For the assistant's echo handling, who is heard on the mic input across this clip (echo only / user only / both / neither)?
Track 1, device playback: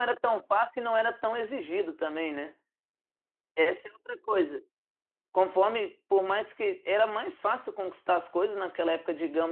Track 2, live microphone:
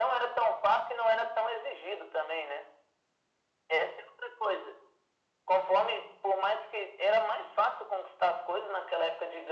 echo only